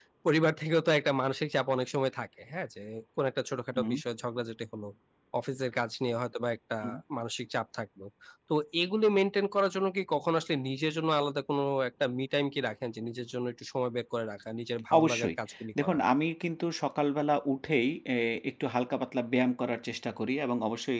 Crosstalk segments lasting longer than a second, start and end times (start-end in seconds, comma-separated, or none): none